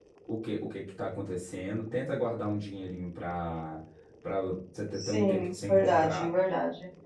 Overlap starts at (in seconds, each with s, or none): 4.9 s